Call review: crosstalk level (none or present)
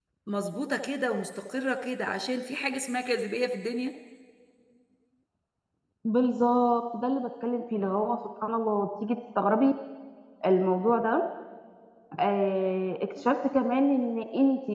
none